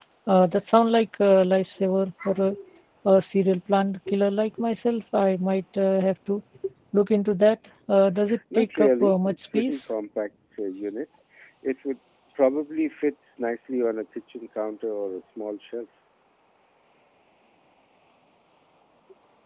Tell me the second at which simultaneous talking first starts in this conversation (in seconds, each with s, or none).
8.5 s